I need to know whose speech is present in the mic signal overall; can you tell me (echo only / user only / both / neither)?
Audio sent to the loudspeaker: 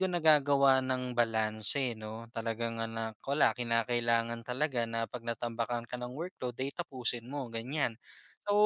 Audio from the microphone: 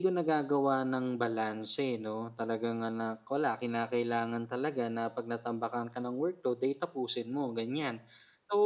echo only